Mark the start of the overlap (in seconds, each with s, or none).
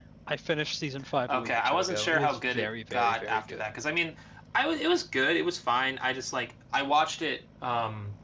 1.3 s